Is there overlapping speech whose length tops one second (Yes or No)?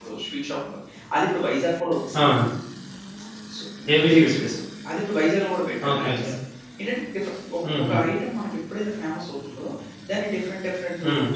No